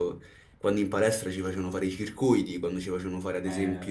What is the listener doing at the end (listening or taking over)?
listening